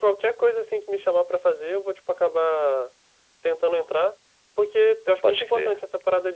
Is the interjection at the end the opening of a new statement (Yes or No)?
No